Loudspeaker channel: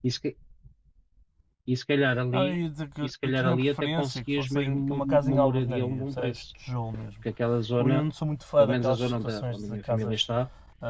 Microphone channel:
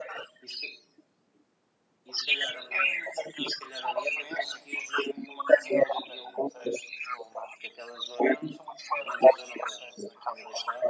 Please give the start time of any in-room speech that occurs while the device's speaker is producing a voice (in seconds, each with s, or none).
none